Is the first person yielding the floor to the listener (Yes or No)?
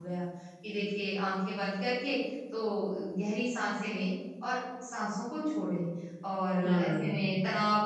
No